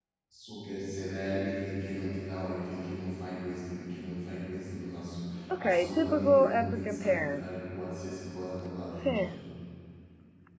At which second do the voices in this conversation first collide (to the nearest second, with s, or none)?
6 s